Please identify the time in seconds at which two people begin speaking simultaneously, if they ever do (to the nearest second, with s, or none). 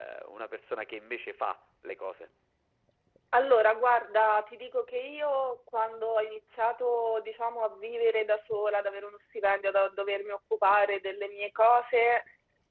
none